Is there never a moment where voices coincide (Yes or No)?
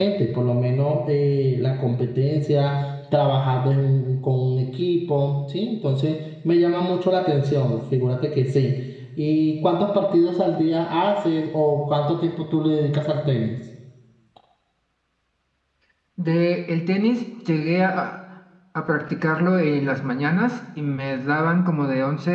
Yes